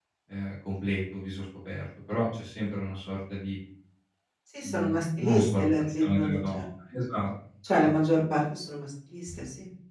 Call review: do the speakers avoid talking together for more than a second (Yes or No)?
No